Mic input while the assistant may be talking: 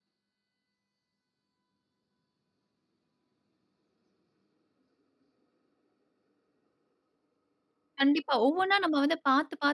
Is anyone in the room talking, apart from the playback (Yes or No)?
Yes